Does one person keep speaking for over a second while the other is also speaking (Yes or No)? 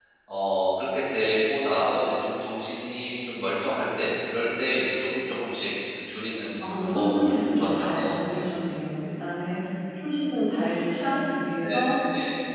Yes